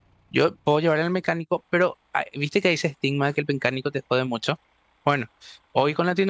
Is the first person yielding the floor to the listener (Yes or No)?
No